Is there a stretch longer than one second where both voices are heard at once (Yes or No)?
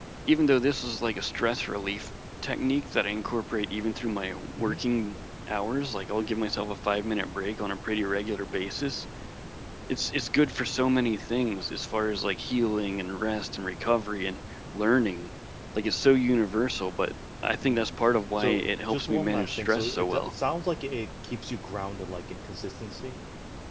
Yes